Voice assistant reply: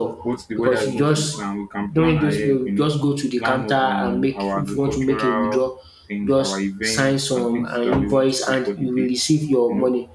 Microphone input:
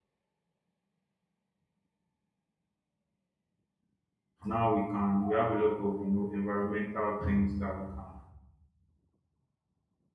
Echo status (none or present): none